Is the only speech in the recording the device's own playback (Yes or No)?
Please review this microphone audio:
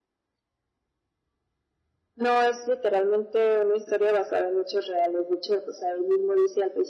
Yes